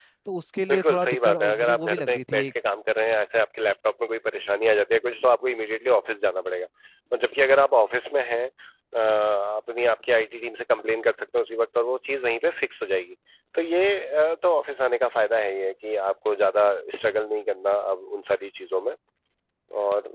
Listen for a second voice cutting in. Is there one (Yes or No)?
Yes